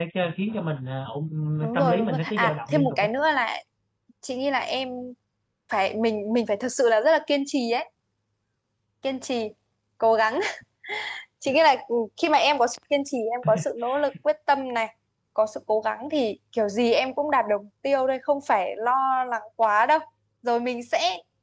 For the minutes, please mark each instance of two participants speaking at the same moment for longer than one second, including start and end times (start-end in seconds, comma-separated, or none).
1.7-3.1